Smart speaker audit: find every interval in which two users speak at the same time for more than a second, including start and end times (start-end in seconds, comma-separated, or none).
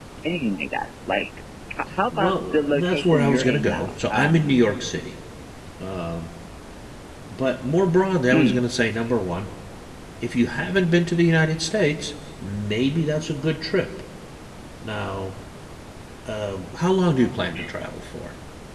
2.2-4.5